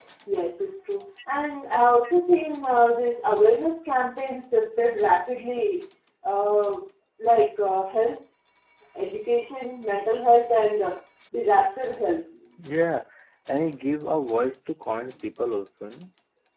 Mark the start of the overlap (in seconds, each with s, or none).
none